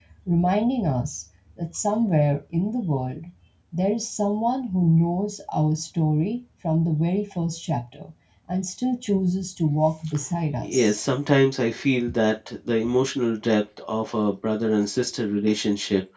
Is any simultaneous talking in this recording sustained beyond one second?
No

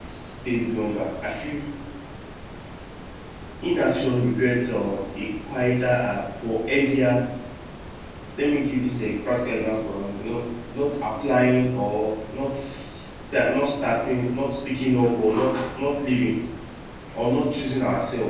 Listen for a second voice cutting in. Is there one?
No

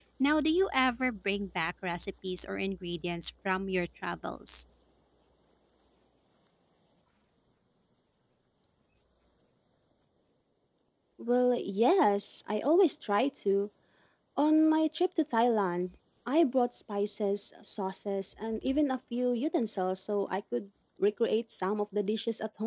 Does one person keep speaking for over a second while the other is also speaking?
No

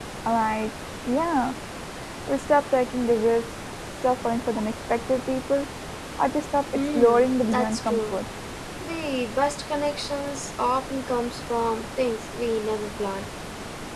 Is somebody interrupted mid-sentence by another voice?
Yes, from 6.9 s

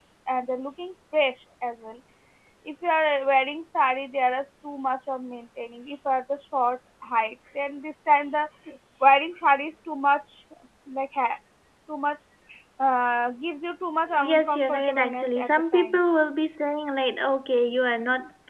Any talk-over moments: Yes, from 14.1 s

